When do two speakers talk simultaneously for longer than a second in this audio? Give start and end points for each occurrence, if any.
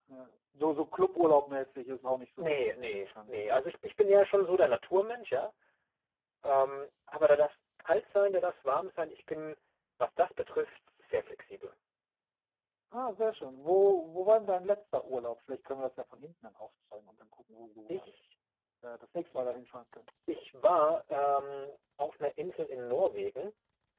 2.4-3.6

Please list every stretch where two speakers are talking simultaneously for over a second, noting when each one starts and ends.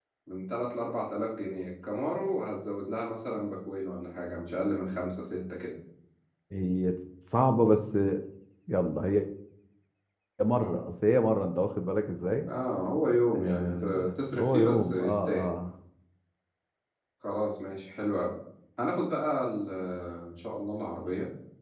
13.3-15.5

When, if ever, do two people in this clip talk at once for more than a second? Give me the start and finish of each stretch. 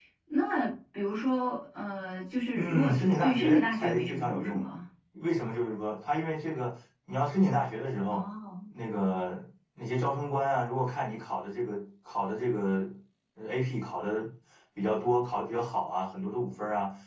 2.5-4.7

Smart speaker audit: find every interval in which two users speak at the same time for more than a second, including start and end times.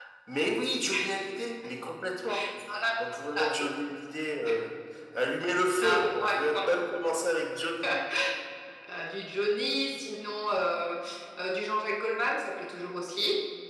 none

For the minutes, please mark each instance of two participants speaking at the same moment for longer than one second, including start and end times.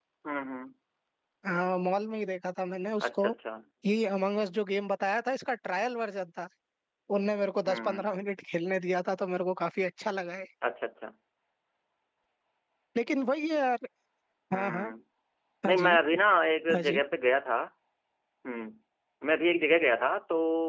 none

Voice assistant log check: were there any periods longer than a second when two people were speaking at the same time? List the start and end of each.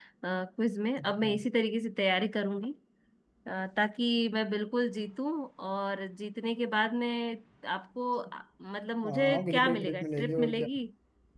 9.0-10.7

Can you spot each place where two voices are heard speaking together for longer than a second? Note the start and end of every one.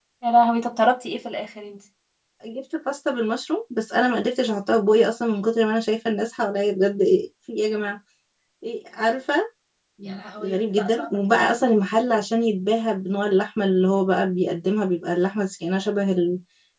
10.4-11.6

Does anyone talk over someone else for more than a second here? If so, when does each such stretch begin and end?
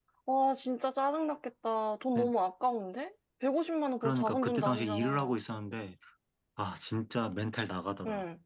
4.0-5.3

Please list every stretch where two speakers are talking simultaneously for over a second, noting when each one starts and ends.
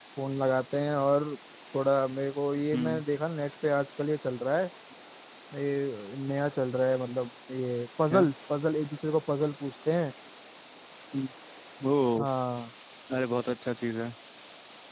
none

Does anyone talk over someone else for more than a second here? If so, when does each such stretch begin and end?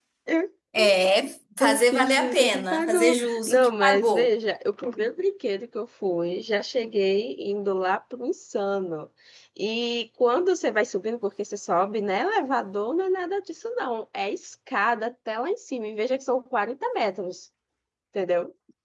1.6-4.3

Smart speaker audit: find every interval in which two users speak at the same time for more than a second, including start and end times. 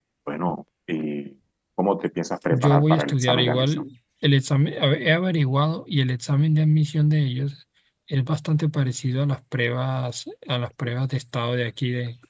2.5-3.8

